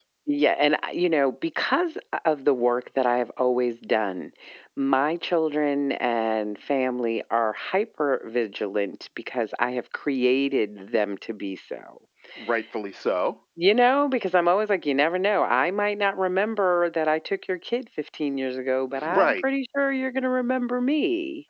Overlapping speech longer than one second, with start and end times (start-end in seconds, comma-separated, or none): none